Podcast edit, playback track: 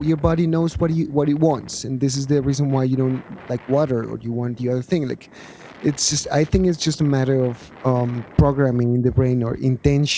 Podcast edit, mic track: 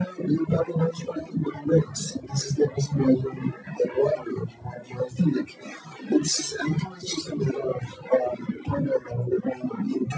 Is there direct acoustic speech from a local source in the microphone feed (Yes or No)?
No